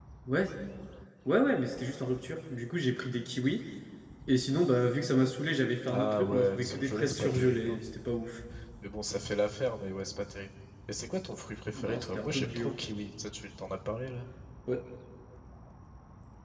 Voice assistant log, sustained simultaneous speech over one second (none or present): present